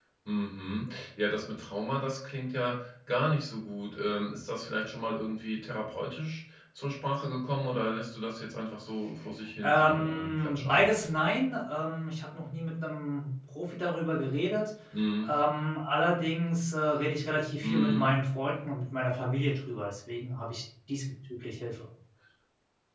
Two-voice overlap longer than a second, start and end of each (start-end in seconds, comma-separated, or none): 9.6-10.8